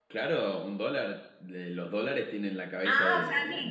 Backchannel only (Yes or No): No